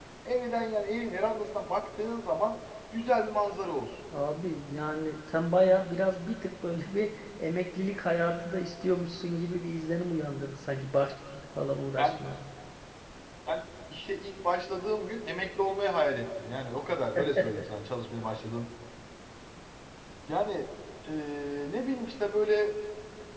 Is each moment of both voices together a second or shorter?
Yes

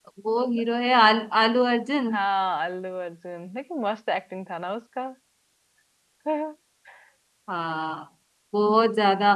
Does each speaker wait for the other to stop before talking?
Yes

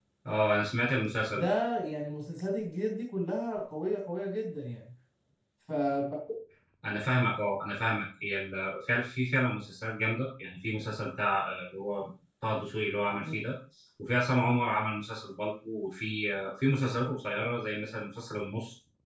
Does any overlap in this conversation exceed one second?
No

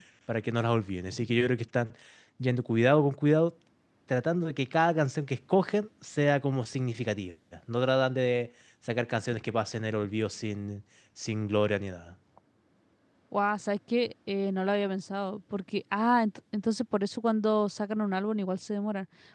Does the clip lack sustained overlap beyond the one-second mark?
Yes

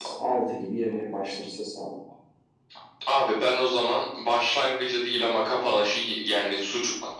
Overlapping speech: No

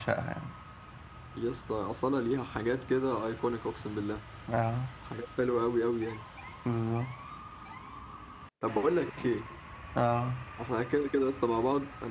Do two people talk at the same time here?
No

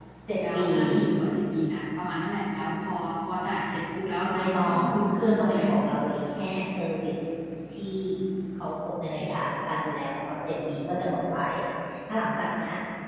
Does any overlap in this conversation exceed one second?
Yes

